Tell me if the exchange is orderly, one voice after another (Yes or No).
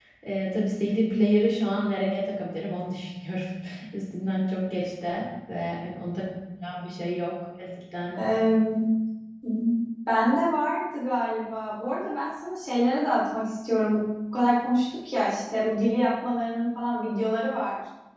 Yes